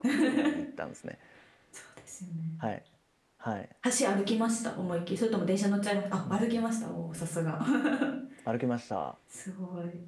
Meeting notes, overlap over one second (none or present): none